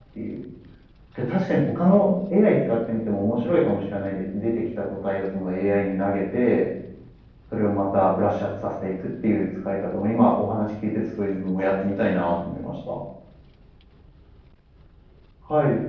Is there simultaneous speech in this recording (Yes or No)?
No